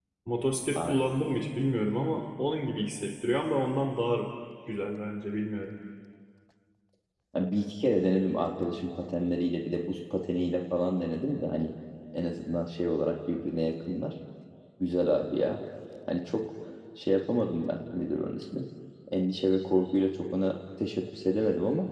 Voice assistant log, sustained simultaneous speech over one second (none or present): none